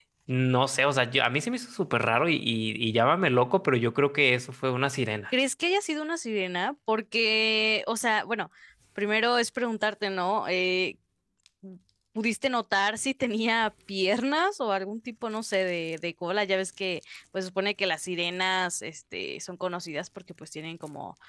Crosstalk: none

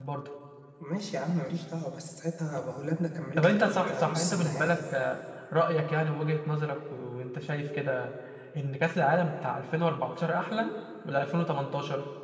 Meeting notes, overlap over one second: present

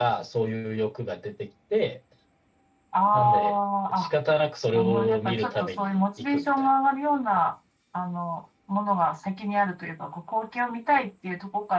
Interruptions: present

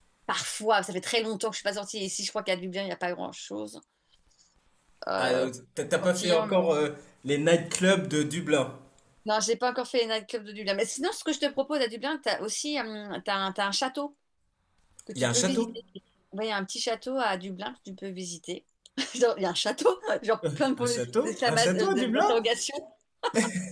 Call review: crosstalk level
present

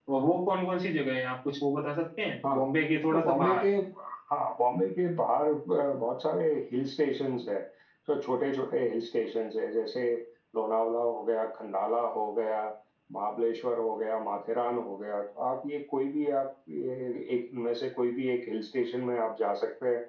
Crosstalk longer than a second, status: none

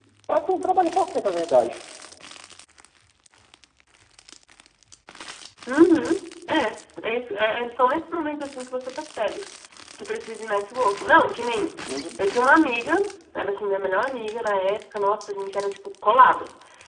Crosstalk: none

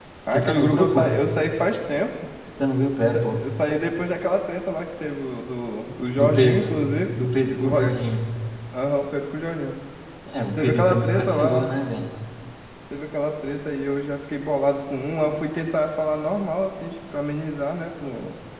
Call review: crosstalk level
present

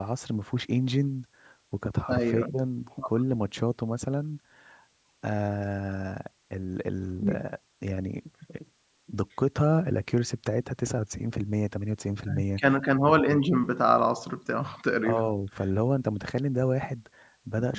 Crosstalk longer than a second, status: none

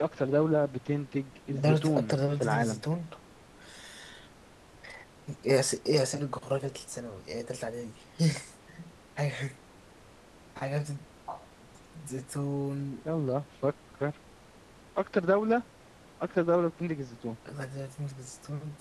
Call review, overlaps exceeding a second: present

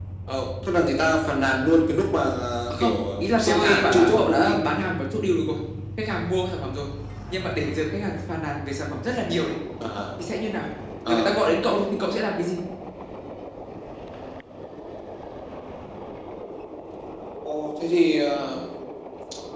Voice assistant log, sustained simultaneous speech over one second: present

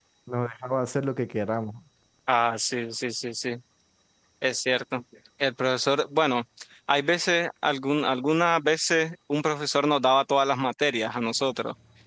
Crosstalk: none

